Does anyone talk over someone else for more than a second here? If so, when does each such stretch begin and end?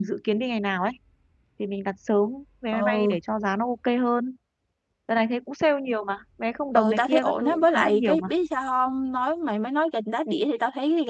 6.8-8.3

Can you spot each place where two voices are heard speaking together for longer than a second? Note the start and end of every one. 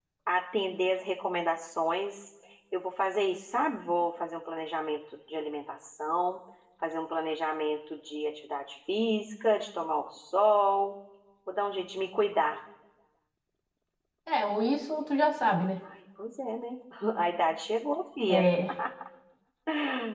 none

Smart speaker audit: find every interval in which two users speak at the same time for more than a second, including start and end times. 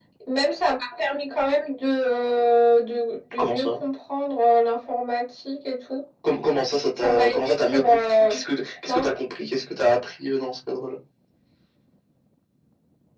7.0-8.3

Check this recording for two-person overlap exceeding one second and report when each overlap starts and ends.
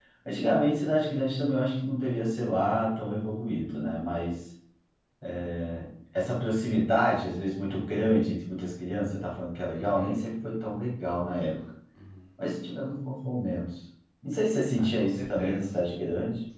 14.8-16.0

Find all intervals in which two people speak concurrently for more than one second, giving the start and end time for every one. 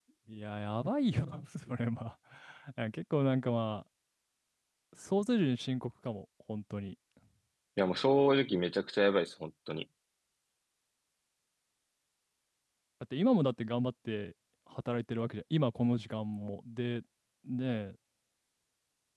none

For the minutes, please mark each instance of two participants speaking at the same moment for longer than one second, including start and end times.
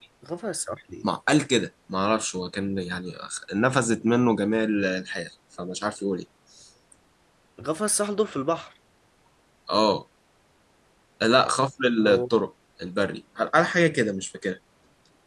none

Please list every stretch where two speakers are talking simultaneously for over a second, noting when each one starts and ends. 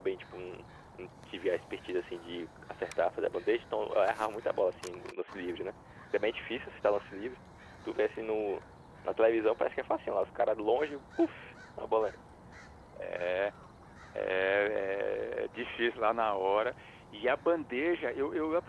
none

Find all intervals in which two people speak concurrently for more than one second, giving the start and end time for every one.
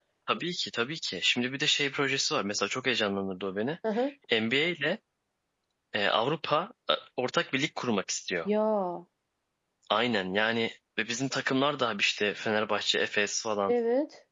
none

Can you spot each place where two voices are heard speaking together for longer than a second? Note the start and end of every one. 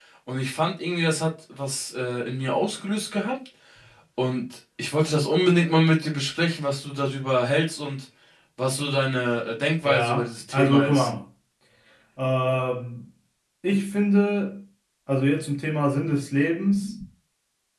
9.8-11.1

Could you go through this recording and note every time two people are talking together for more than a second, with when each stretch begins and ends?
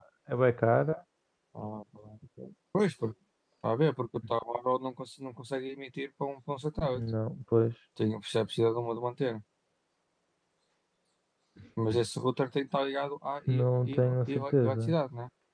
13.5-15.0

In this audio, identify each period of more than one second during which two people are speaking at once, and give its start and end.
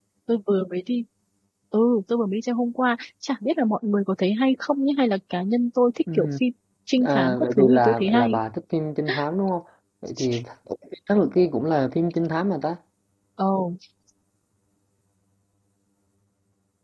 7.0-8.4

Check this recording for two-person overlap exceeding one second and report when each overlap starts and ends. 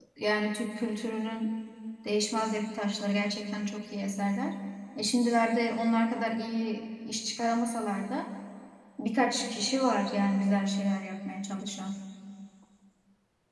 none

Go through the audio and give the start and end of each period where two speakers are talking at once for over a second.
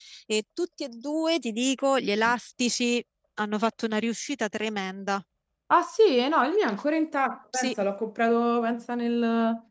none

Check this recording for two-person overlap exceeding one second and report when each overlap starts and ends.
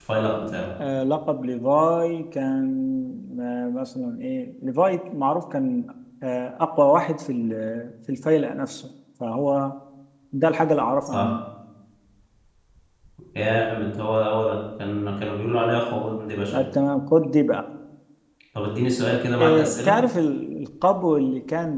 none

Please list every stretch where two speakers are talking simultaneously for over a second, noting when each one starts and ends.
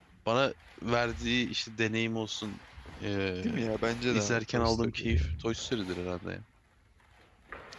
4.1-5.3

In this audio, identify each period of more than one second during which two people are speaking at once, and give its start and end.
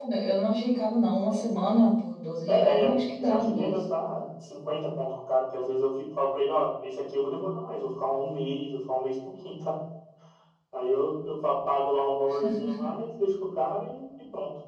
2.5-3.7

